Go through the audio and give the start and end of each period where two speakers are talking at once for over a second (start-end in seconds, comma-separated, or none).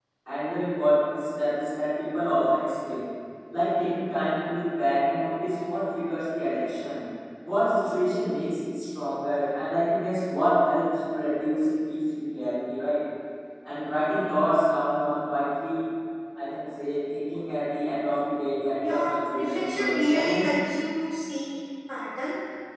18.8-20.4